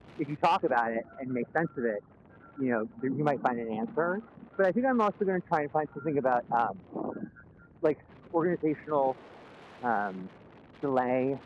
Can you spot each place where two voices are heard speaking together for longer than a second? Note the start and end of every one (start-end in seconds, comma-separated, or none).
none